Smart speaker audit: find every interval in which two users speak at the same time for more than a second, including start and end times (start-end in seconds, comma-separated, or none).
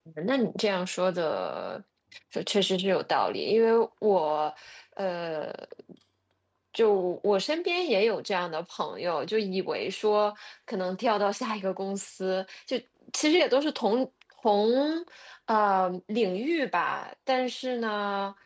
none